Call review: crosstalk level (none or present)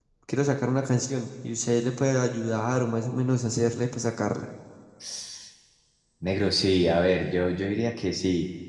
none